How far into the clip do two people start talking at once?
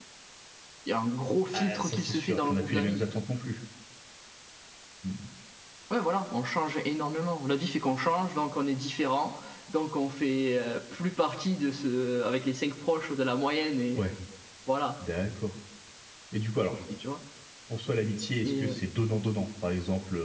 1.5 s

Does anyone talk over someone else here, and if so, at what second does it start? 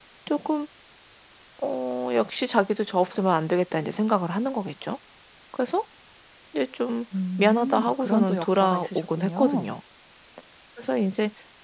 7.4 s

